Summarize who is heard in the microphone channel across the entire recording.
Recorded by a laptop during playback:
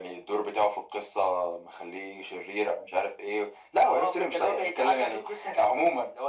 echo only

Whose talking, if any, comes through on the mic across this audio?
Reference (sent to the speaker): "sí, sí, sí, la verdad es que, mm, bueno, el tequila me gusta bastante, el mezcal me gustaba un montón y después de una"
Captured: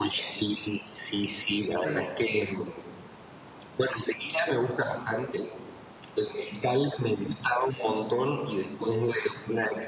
both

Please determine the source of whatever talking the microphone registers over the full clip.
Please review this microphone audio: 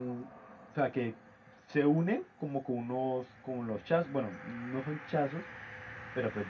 echo only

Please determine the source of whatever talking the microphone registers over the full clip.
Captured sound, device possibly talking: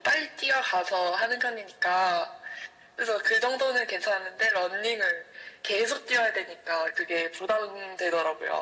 echo only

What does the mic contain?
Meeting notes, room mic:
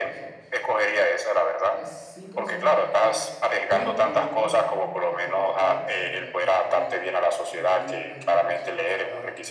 both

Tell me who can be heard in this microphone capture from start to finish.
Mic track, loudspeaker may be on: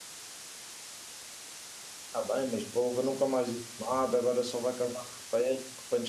user only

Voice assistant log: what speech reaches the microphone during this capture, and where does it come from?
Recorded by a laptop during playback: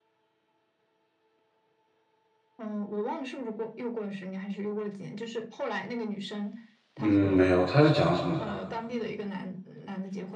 both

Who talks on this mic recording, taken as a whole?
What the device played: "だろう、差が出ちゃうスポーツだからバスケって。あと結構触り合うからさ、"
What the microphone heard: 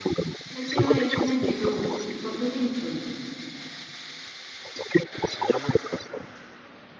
both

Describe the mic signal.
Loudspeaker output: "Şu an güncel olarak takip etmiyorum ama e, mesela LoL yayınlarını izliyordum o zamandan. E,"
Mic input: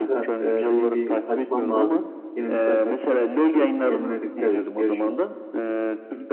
both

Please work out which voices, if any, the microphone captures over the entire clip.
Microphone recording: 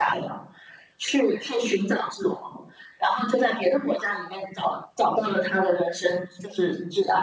echo only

